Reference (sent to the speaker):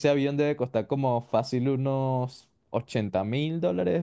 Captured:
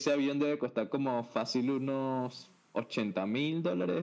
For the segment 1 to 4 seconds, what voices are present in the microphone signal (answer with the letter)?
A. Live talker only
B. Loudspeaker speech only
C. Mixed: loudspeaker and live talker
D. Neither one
B